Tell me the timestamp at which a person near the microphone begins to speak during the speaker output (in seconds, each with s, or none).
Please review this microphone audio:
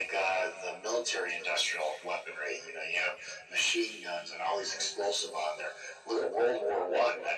none